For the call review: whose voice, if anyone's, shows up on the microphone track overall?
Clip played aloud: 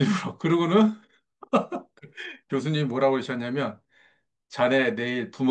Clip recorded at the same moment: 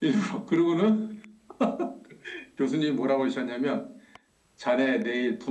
echo only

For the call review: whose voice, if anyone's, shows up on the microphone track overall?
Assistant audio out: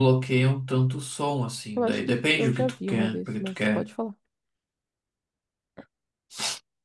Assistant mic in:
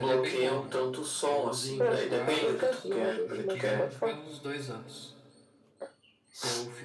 both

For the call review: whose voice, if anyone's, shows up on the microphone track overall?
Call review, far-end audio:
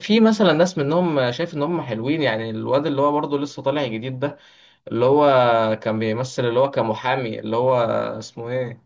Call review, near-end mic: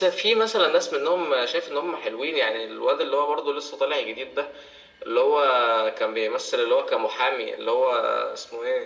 echo only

